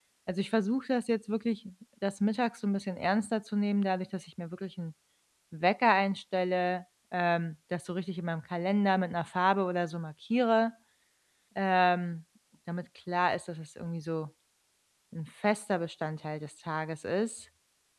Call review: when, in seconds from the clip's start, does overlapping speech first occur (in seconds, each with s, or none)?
none